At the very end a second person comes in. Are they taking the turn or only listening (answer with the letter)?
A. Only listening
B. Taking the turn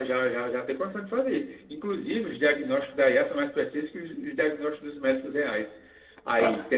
A